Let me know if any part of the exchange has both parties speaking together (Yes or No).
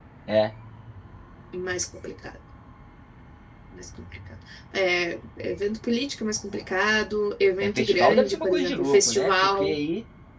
Yes